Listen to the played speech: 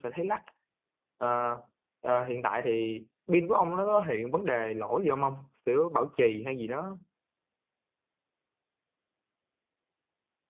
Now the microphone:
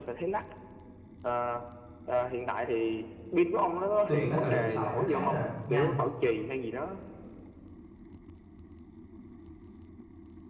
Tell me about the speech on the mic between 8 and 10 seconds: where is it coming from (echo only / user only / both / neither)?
neither